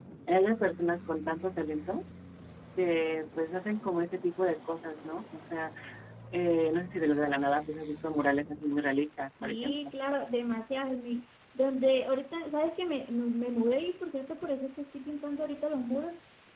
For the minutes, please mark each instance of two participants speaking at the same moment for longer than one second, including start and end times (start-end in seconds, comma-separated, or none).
none